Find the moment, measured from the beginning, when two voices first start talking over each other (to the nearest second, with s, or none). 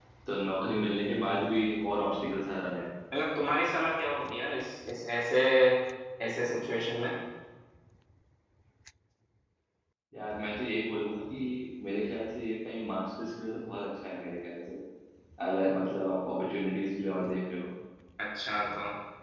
none